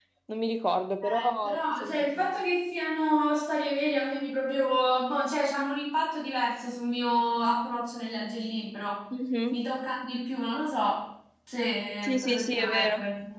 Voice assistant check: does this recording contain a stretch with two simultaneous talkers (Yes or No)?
Yes